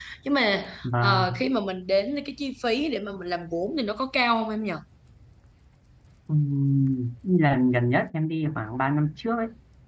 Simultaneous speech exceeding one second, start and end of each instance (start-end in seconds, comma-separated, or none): none